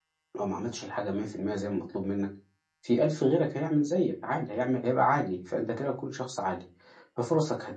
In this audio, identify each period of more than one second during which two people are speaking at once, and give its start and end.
none

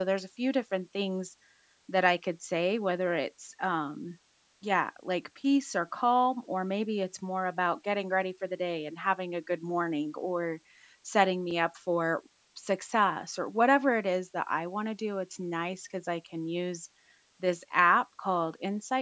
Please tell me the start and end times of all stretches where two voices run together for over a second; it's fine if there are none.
none

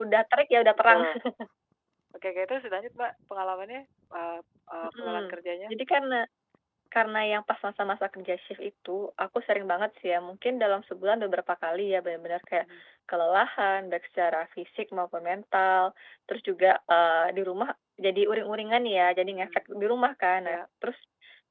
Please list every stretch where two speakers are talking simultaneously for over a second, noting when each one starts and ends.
none

